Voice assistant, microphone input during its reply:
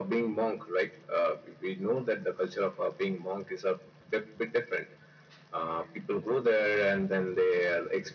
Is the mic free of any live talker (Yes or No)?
Yes